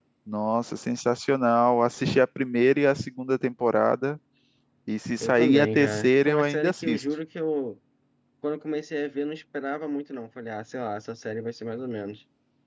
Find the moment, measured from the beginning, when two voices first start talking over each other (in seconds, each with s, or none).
5.2 s